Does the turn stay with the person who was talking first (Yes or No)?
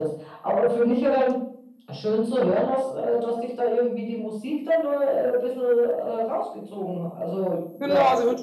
No